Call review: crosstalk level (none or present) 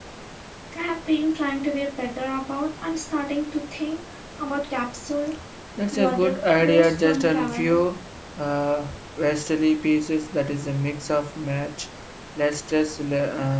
present